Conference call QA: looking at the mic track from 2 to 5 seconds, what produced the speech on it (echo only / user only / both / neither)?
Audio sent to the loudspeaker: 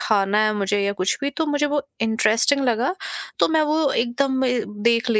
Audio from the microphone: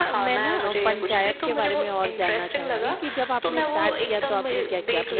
both